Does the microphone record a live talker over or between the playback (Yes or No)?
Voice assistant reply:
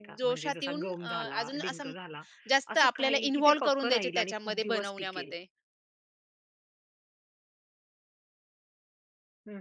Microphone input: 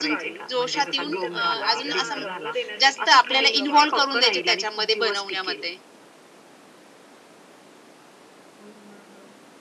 Yes